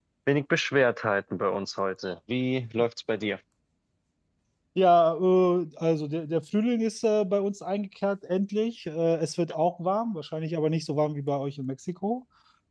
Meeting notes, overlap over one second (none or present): none